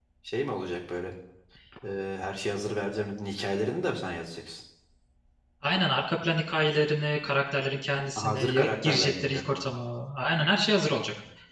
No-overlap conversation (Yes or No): No